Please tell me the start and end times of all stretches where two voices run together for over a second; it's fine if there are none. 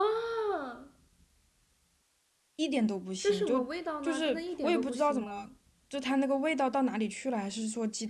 4.0-5.3

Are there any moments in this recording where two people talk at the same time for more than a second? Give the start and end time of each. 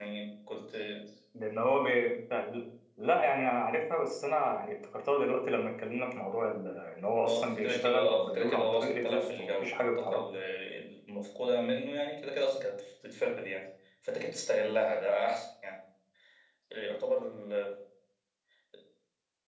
7.2-10.2

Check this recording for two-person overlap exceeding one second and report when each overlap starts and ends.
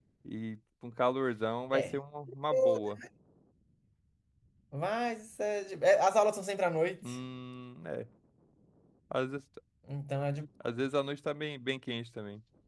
none

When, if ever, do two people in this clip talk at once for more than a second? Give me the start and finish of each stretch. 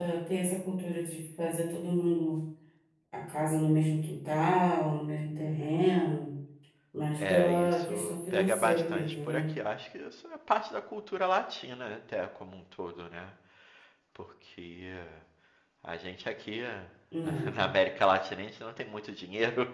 7.2-9.5

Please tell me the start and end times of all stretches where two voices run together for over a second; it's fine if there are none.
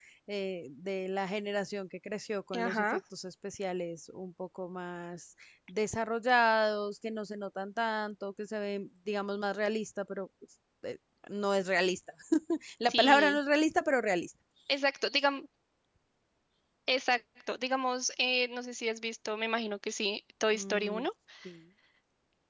none

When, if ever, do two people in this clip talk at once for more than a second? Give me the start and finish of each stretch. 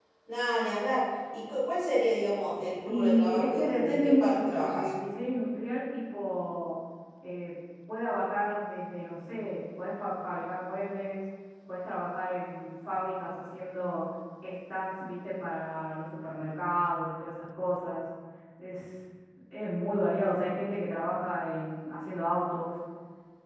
2.9-4.9

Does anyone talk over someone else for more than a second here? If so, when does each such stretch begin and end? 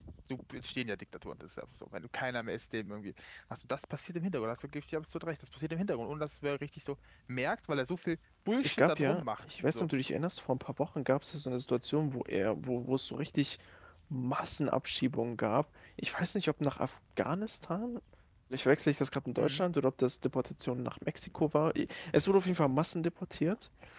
8.6-9.9

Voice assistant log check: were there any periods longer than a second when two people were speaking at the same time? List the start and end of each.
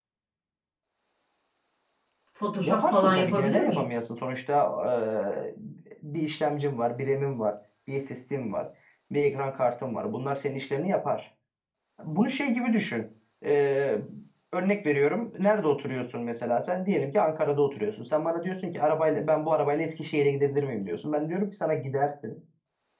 2.6-3.9

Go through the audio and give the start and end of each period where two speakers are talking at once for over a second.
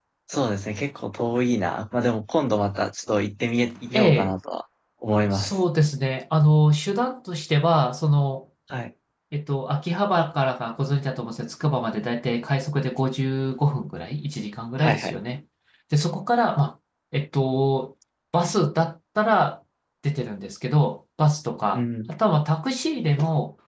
none

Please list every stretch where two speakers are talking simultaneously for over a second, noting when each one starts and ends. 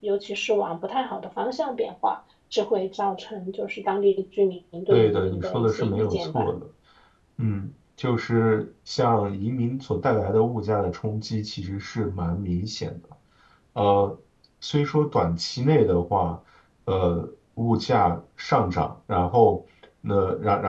4.9-6.5

